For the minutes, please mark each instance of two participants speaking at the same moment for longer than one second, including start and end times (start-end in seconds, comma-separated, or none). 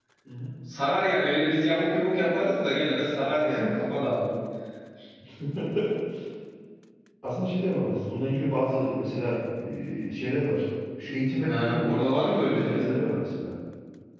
11.4-13.0